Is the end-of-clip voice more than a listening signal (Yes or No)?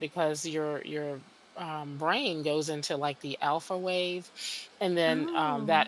No